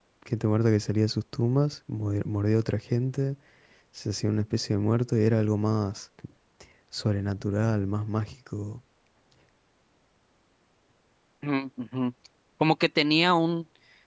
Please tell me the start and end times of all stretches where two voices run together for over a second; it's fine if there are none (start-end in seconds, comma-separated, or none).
none